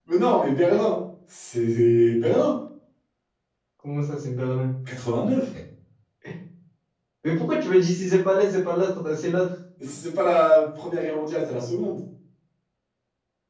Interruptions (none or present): none